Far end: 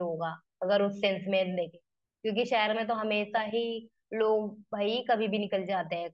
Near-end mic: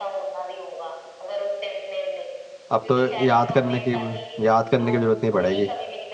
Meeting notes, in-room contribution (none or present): present